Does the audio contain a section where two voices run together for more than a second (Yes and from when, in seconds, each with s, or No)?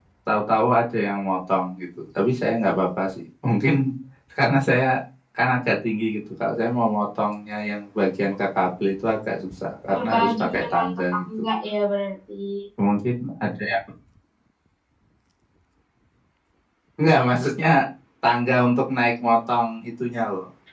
Yes, from 9.9 s